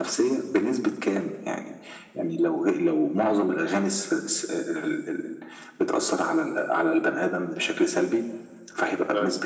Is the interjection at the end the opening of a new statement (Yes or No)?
No